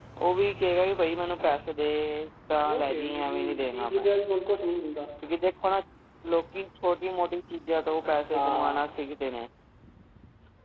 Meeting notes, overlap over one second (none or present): present